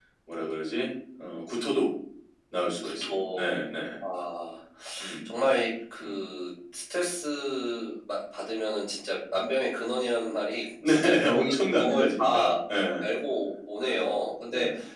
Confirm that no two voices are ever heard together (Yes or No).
No